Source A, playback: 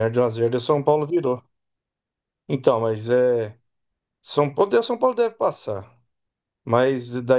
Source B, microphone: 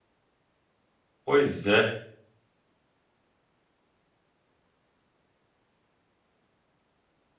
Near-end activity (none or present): present